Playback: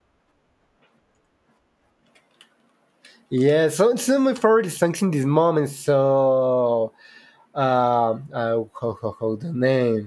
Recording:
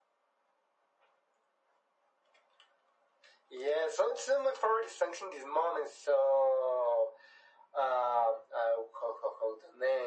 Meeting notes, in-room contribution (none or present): none